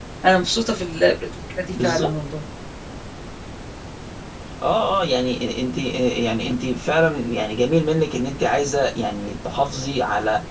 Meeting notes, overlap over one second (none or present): none